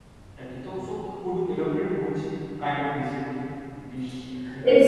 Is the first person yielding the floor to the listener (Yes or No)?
Yes